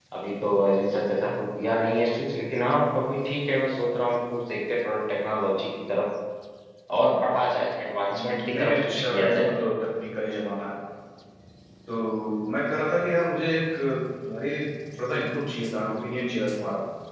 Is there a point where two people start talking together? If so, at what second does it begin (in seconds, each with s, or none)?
8.1 s